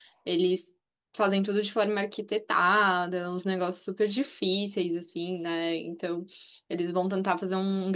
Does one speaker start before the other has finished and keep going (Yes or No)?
No